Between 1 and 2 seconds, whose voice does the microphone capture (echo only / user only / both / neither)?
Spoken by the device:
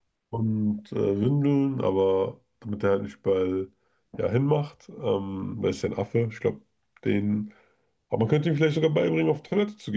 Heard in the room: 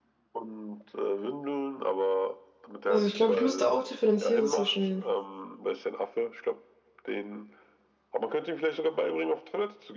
echo only